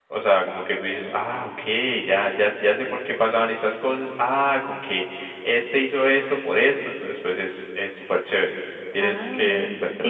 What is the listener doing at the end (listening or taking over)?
taking over